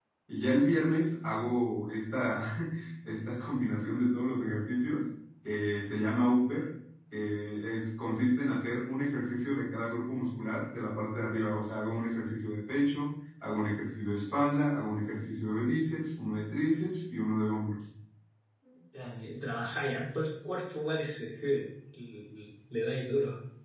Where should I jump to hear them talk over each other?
none

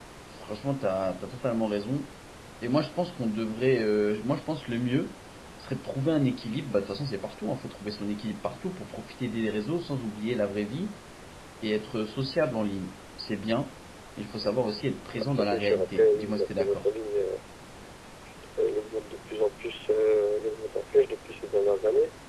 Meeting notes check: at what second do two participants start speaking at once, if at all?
15.1 s

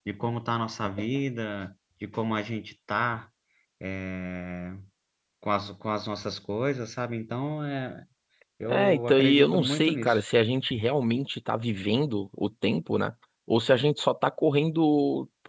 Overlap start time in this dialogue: 8.7 s

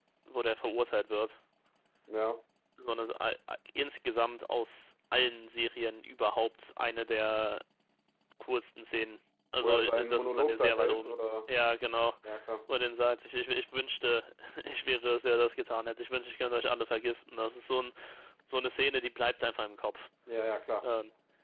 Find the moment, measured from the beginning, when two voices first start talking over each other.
9.6 s

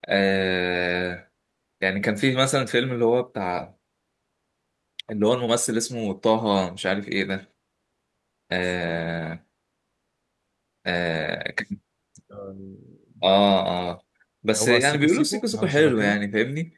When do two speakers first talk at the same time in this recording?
14.6 s

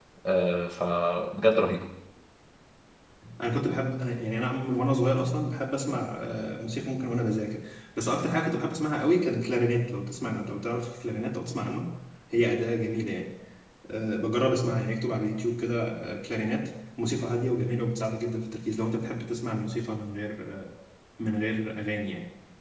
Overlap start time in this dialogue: none

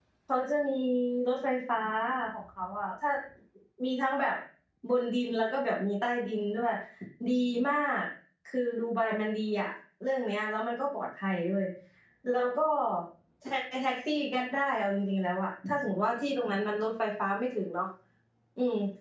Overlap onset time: none

